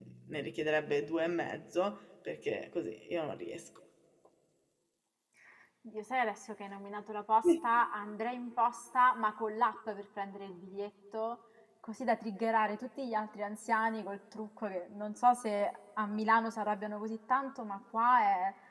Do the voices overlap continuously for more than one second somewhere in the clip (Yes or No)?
No